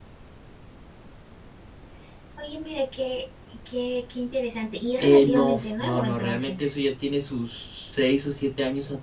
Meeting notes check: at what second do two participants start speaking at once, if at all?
5.0 s

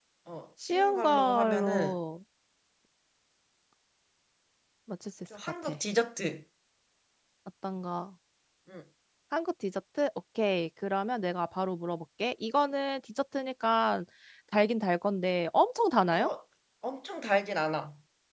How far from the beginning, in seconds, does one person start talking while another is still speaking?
0.7 s

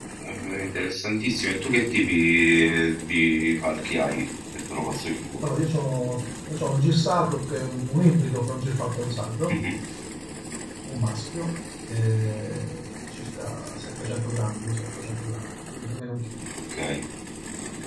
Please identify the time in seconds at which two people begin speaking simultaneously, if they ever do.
none

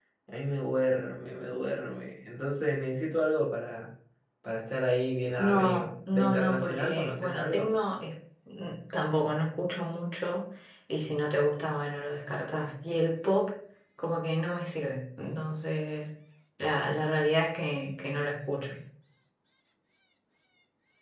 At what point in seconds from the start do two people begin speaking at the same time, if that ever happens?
5.4 s

